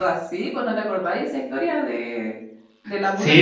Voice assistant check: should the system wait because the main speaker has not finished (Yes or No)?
No